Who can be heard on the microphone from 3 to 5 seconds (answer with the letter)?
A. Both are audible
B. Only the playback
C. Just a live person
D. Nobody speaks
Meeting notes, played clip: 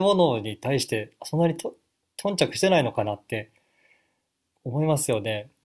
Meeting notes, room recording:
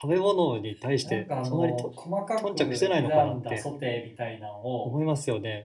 A